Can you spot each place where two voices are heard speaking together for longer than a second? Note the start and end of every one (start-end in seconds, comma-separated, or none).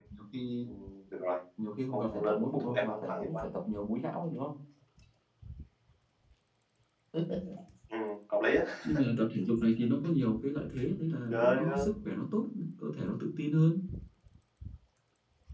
1.9-3.4